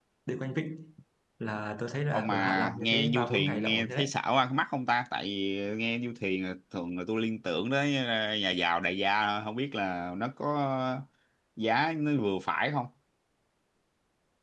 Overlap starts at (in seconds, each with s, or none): 2.1 s